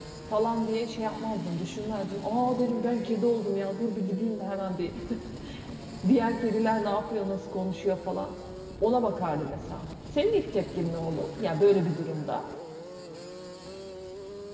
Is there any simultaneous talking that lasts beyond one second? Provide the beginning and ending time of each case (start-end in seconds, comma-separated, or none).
none